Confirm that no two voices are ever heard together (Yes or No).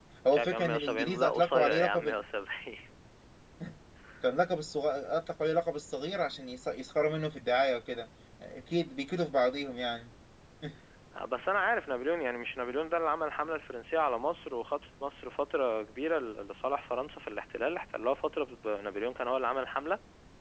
No